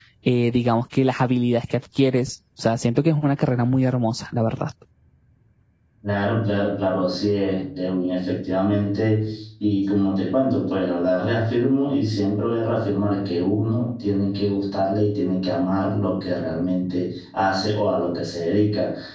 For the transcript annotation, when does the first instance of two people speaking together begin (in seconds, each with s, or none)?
none